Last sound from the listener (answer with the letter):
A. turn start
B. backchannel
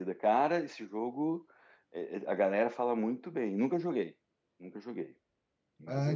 A